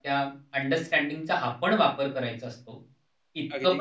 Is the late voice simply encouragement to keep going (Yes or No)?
Yes